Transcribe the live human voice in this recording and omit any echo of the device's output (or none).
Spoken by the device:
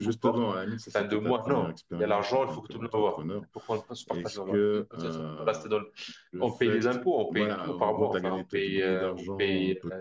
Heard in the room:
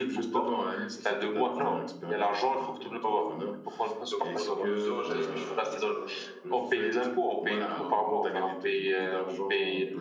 Donc pendant deux ans, j'avais mes cheveux qui sont,